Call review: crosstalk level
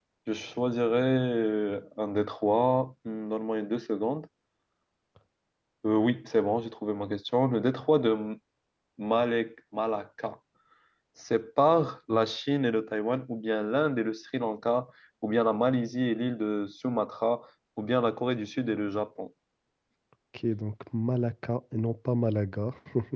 none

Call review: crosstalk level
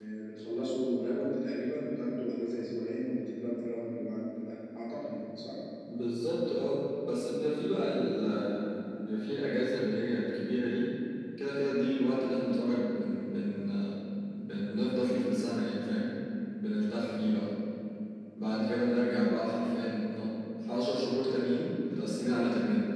none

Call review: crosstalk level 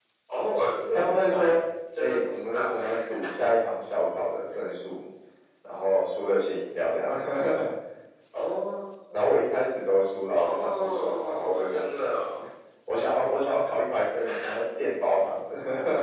present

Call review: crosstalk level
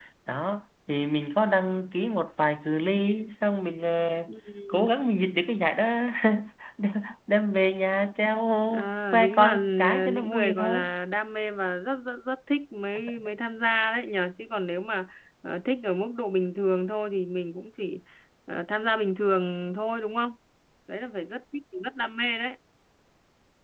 present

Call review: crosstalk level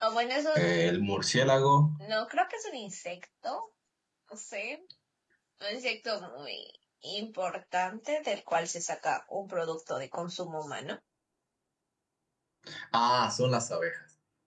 none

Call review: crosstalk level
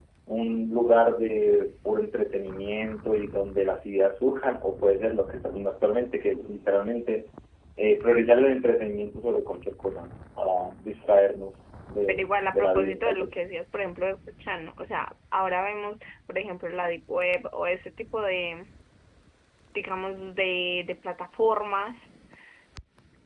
present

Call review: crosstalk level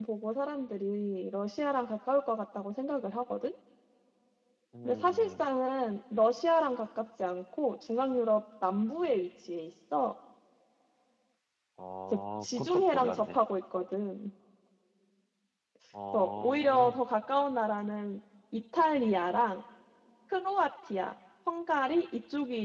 present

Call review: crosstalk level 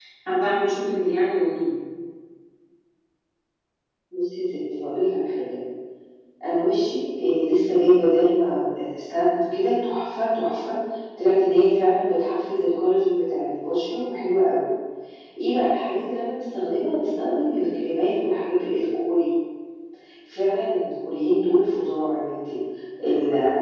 none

